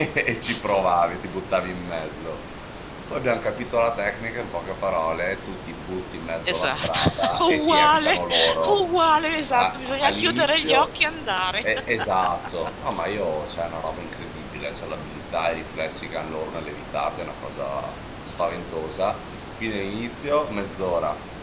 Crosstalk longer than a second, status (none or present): present